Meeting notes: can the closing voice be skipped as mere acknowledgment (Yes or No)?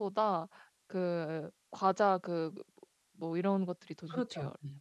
No